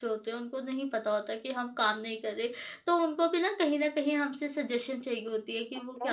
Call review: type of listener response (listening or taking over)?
listening